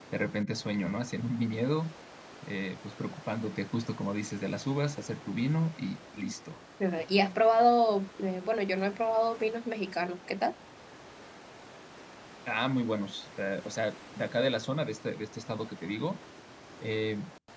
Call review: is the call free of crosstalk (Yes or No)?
Yes